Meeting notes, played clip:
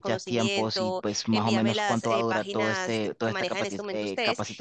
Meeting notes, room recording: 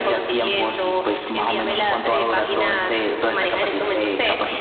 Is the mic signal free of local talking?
Yes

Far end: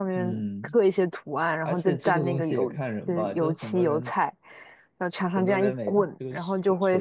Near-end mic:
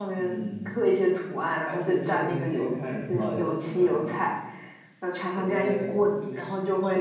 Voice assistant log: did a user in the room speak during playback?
Yes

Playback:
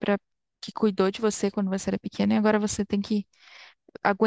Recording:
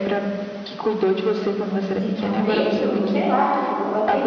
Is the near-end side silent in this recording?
No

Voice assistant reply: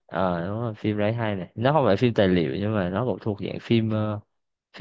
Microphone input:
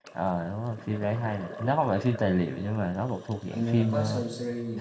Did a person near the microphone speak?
Yes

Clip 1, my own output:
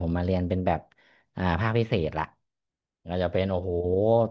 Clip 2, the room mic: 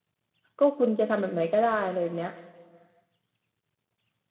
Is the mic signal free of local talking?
No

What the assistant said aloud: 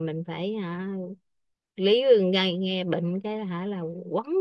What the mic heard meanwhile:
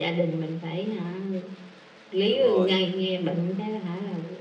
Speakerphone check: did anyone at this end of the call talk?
Yes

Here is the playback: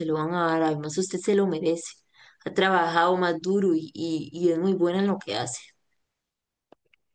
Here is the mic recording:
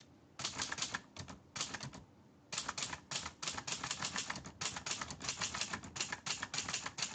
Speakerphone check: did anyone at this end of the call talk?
No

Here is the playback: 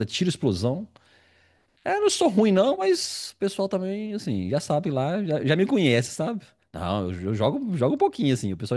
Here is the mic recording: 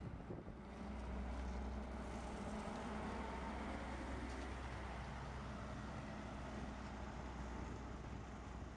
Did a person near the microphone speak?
No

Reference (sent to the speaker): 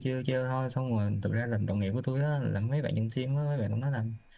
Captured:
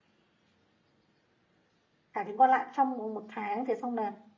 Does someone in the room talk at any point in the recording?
Yes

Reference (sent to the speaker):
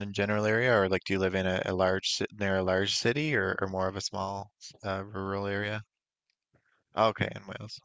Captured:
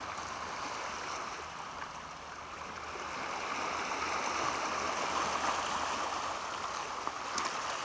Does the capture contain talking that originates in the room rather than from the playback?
No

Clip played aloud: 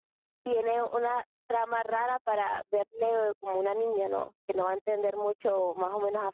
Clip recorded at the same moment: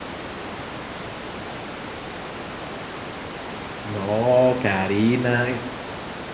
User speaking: Yes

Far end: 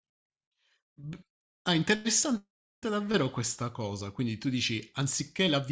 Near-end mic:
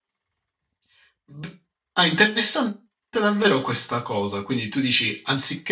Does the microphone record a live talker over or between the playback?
No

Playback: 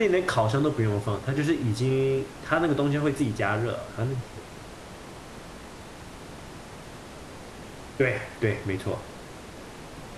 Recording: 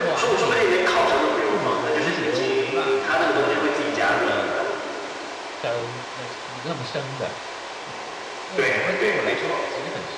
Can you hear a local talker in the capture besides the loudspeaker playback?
Yes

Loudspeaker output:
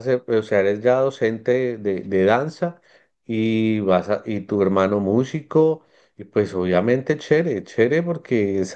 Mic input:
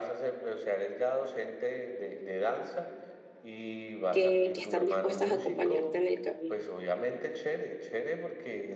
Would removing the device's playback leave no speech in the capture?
No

